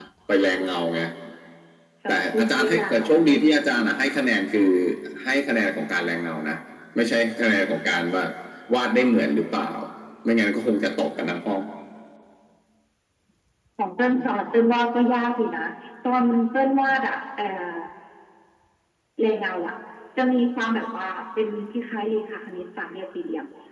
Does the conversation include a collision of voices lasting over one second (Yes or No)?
Yes